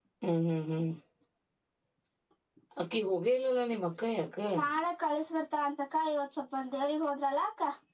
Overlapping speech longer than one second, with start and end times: none

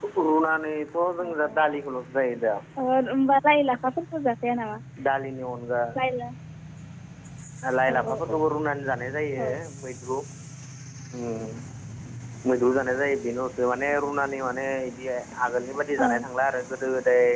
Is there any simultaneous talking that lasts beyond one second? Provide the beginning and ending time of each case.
none

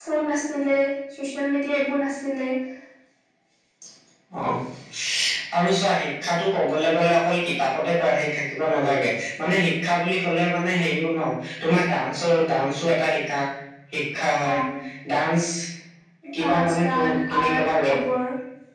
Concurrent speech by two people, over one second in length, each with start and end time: 16.4-18.0

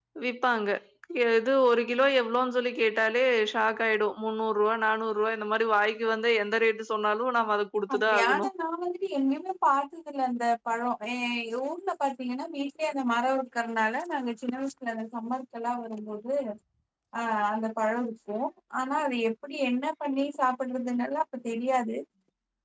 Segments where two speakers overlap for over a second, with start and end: none

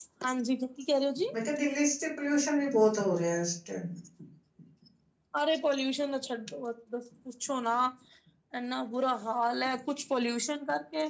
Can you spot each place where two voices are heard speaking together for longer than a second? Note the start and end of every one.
none

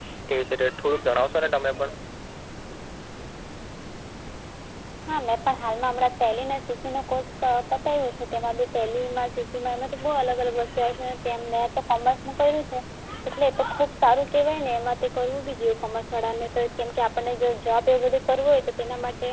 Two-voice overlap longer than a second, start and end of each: none

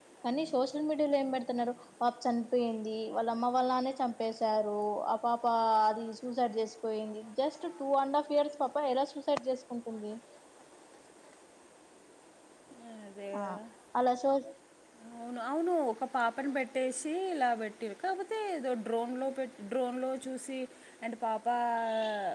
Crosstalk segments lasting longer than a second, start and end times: none

